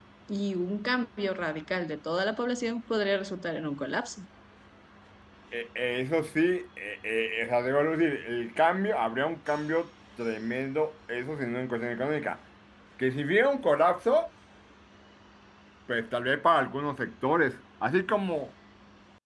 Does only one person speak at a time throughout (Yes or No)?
Yes